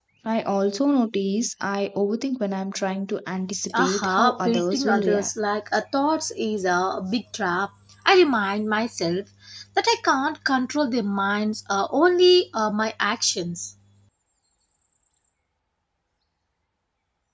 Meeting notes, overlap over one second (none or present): present